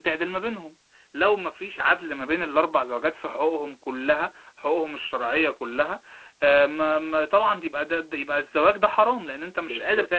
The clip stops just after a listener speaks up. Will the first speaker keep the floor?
No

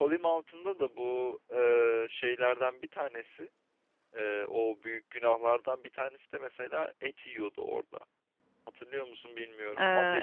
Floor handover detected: Yes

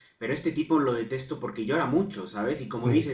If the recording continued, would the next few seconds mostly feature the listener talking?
No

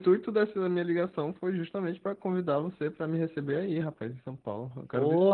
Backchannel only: No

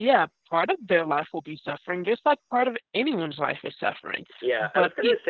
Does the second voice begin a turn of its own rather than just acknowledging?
Yes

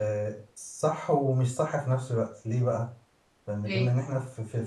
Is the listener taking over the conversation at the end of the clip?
No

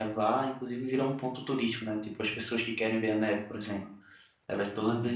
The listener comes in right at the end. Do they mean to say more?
No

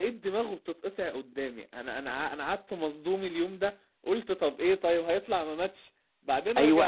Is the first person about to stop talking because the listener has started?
Yes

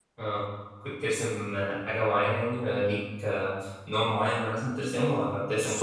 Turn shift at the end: Yes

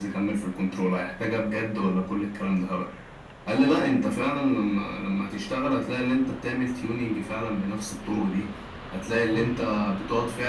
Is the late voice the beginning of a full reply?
No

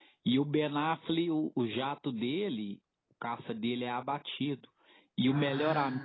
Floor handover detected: No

